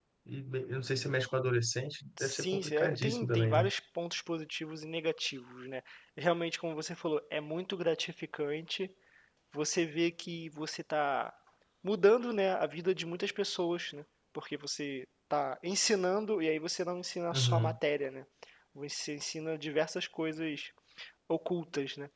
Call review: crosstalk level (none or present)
present